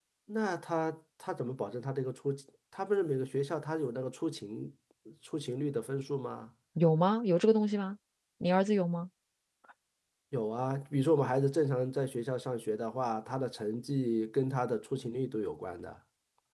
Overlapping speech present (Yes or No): No